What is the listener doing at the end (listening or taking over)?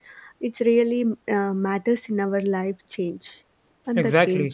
taking over